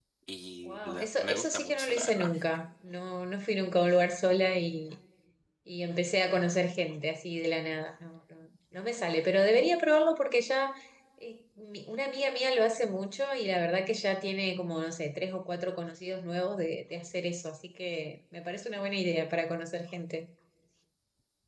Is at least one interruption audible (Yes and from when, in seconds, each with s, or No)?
Yes, from 0.7 s